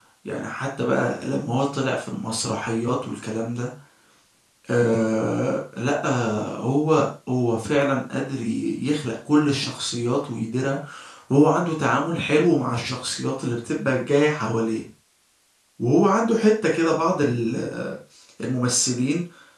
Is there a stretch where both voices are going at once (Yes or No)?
No